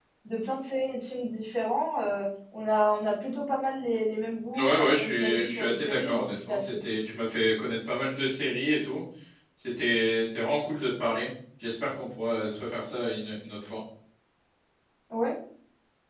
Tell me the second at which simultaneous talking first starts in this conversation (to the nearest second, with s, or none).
5 s